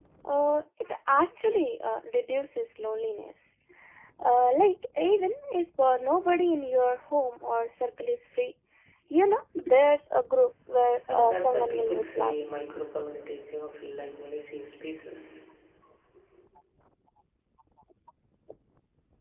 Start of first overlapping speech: 11.1 s

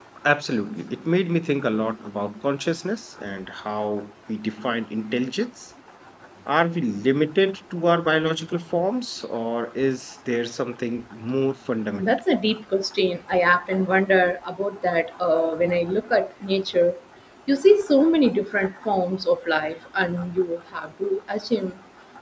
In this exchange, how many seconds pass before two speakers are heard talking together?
none

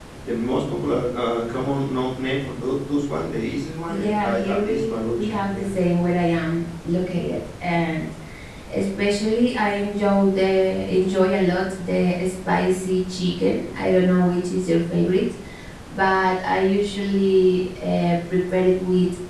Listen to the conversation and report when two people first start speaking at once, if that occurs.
3.9 s

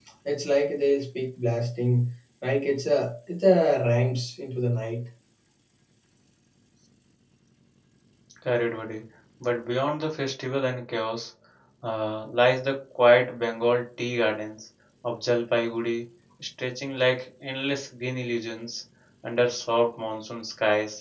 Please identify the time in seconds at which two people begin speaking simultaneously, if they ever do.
none

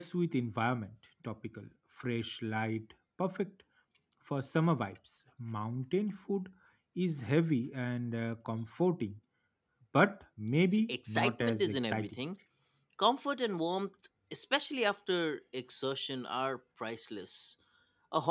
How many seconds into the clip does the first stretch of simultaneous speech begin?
10.7 s

